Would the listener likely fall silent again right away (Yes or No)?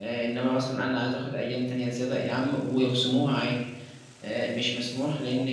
Yes